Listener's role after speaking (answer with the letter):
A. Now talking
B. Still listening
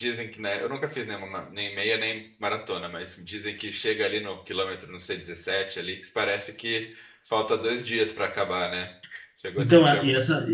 A